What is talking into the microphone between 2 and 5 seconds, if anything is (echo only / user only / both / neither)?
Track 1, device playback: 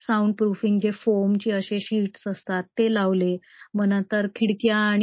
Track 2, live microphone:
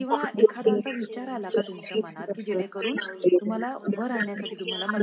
both